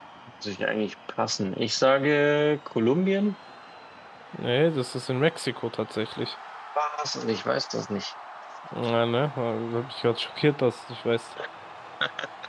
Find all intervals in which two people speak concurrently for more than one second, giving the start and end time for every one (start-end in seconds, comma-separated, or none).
none